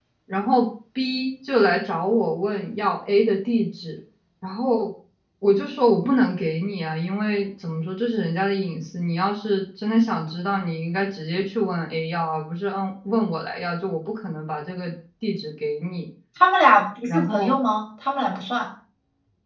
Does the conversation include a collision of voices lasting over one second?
No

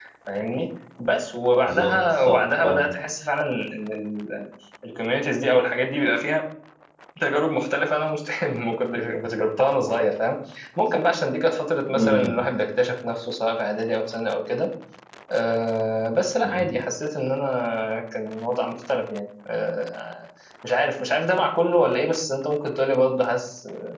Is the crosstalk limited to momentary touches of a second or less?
No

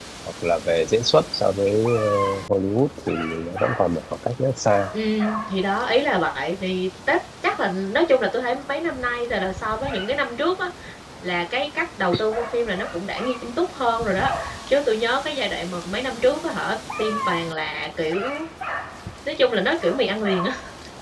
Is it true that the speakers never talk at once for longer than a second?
Yes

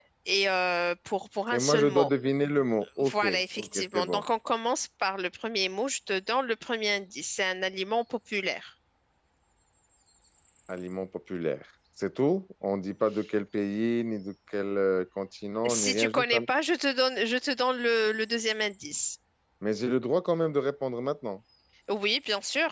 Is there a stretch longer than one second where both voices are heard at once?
Yes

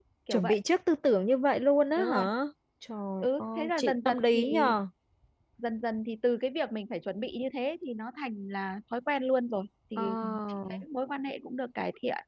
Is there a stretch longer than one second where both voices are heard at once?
Yes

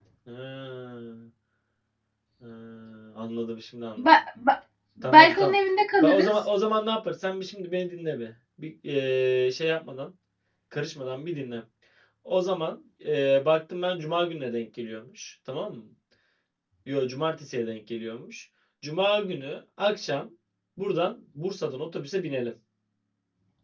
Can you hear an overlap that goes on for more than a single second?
No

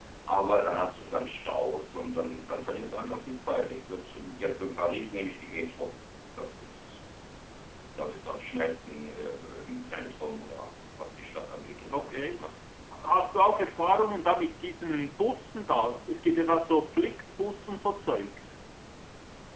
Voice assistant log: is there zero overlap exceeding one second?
Yes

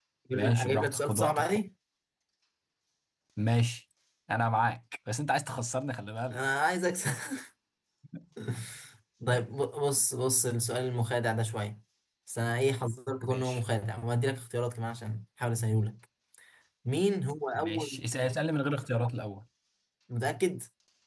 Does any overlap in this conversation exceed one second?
Yes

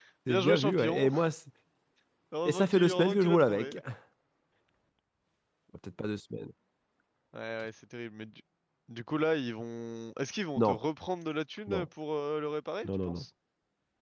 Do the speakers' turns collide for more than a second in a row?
Yes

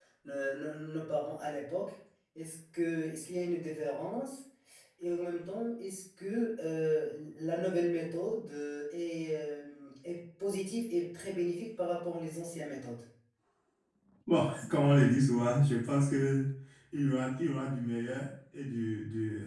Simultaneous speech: No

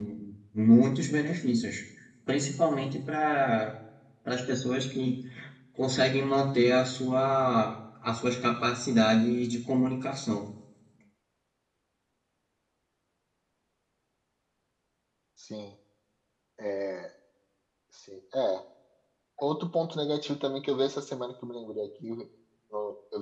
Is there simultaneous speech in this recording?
No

